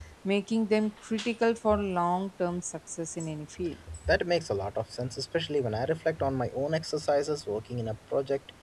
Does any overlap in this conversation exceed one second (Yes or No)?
No